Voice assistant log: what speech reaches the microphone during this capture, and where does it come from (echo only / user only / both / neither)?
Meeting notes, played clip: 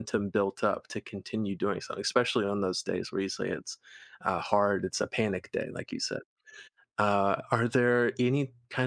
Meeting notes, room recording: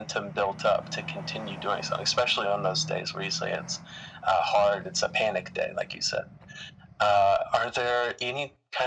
echo only